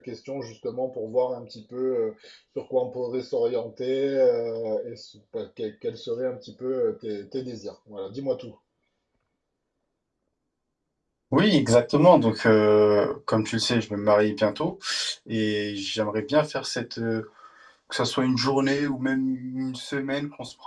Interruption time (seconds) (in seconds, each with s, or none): none